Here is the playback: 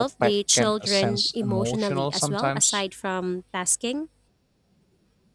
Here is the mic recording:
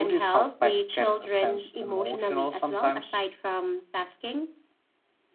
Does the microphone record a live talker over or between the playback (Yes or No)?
No